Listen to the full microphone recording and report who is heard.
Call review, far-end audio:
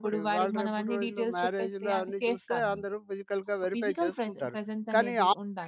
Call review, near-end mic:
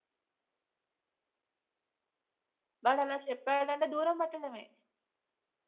user only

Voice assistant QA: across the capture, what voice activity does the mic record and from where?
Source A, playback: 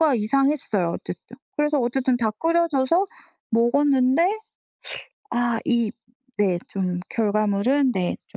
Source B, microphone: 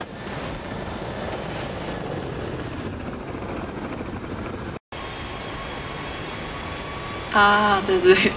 user only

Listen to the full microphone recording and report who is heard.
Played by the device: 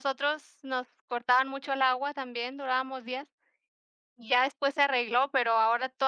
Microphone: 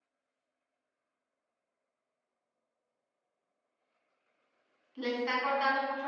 user only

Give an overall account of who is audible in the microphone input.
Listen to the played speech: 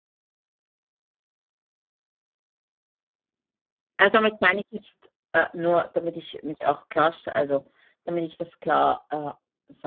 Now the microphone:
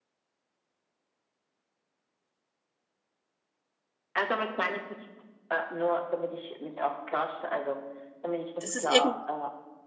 both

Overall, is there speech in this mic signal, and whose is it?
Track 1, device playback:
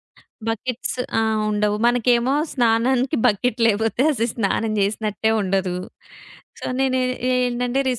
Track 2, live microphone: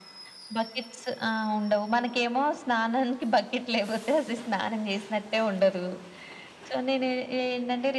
echo only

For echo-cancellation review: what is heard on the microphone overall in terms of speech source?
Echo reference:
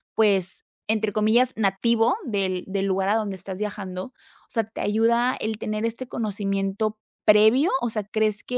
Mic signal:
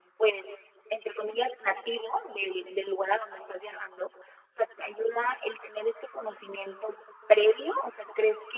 echo only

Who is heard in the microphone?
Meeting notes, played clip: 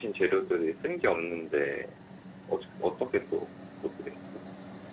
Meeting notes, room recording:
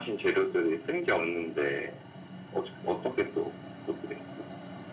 echo only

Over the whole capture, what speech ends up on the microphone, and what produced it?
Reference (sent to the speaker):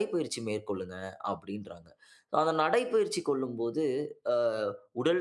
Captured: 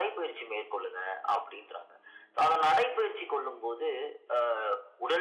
echo only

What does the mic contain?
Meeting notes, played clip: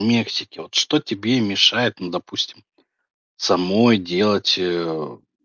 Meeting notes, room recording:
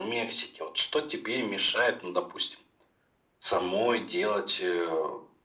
echo only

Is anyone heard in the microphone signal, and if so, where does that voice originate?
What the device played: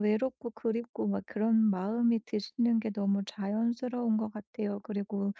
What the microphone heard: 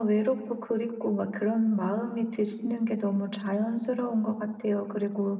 echo only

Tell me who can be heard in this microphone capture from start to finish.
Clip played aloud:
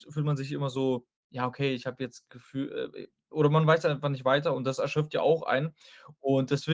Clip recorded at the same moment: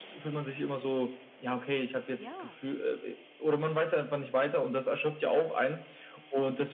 both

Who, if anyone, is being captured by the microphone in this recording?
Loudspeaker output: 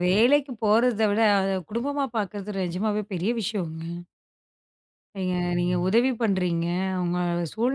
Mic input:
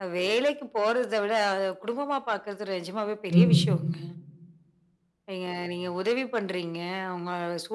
both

